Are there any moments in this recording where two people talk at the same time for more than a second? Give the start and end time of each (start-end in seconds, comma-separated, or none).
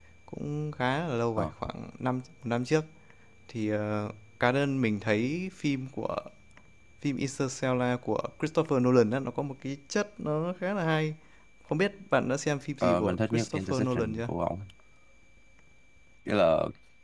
12.8-14.3